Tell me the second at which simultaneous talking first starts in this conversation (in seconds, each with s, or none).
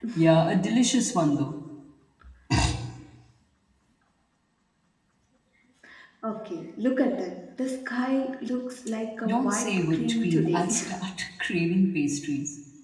9.2 s